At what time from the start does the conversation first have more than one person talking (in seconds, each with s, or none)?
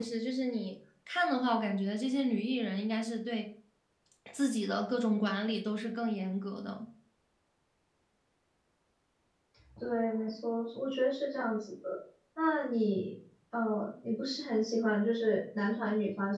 none